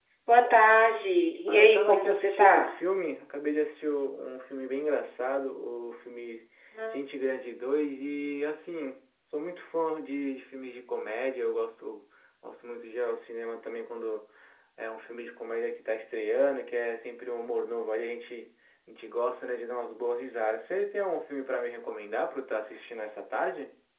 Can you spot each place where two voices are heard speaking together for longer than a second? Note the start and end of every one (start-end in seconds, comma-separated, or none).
1.5-2.7